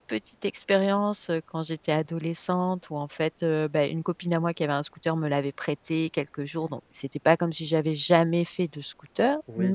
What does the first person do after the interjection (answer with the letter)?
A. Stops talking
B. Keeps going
A